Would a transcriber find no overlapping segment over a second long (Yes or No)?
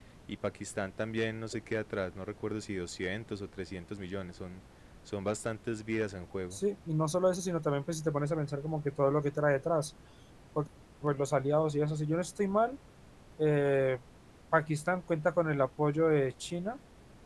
Yes